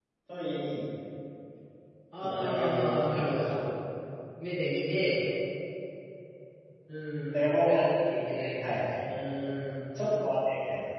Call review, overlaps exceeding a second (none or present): present